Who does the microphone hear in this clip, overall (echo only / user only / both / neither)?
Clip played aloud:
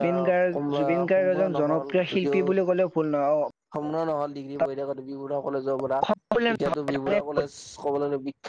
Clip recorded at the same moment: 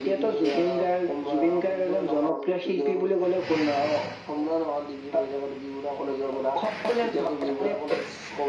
echo only